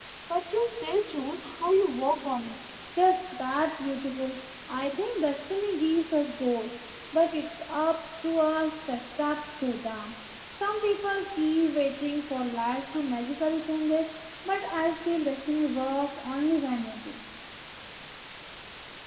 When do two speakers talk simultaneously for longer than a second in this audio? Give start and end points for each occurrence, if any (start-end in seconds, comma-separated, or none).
none